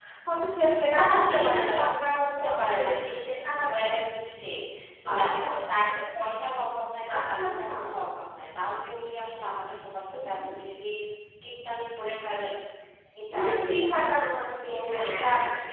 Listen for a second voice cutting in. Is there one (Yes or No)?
Yes